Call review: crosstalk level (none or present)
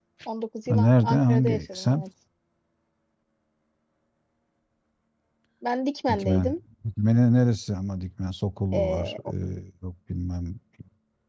present